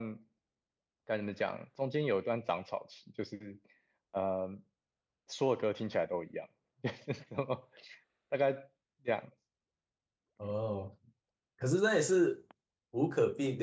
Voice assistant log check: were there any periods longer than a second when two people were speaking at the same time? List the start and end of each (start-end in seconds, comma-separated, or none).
none